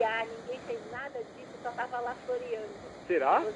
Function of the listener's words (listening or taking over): listening